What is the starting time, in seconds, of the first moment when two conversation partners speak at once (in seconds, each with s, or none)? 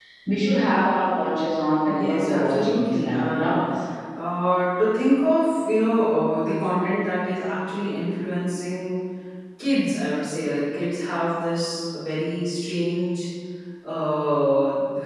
1.8 s